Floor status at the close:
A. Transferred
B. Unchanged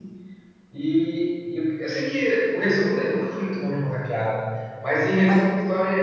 B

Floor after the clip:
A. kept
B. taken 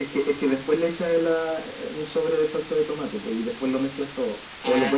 B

